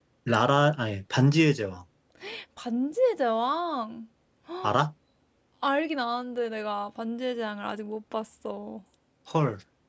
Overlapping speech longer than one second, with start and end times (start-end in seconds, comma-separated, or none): none